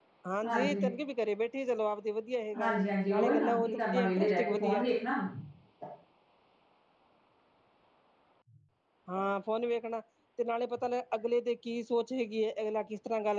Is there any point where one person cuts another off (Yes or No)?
Yes